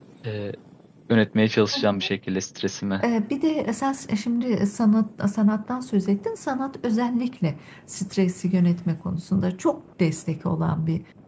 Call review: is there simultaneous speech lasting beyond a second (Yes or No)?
No